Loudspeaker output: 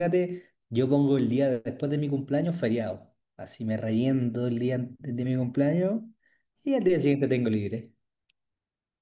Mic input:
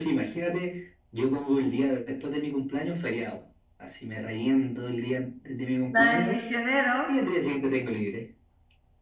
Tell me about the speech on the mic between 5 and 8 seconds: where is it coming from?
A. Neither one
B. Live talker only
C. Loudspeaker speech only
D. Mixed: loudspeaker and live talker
D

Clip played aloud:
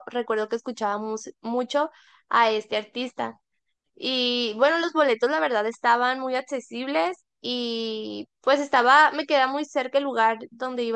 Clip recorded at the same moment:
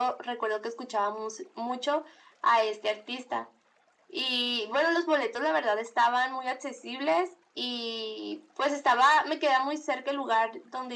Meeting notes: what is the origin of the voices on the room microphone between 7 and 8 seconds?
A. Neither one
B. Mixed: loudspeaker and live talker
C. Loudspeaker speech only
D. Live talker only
C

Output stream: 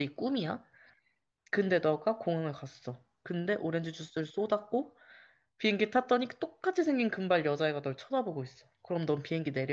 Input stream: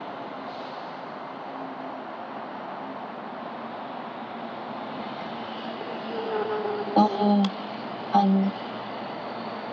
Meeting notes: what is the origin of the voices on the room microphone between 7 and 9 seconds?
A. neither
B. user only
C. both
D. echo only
B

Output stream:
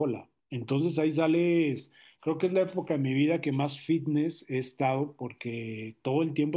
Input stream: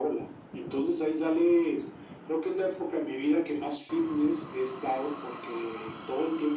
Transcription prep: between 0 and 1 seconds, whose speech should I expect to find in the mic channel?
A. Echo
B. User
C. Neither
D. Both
A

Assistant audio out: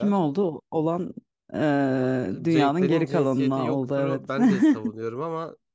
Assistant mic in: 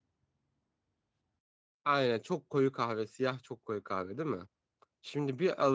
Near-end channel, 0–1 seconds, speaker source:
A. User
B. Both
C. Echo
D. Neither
D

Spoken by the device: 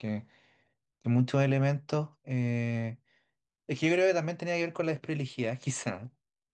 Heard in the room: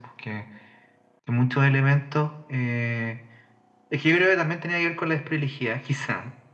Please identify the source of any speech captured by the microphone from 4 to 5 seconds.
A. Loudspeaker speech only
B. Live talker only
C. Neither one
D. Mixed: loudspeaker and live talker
A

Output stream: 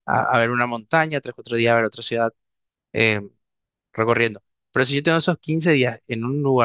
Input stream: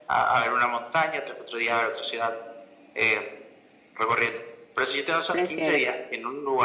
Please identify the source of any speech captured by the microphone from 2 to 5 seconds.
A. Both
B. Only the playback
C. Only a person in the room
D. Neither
B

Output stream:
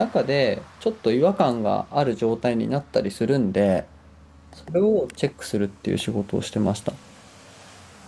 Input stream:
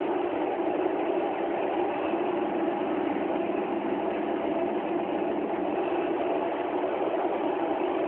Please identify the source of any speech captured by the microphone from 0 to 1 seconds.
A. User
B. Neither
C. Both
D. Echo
B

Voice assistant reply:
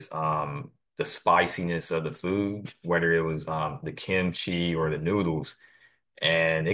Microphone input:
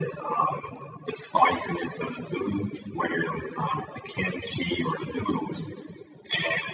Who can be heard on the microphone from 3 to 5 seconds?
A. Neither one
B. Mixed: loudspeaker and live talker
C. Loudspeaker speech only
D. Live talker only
C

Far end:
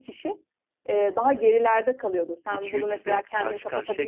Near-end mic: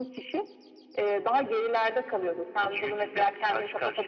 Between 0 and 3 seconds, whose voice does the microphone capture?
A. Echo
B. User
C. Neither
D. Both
A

